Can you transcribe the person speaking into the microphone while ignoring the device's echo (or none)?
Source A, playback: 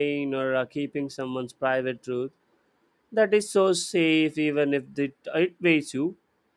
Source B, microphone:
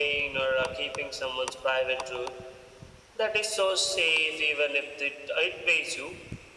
none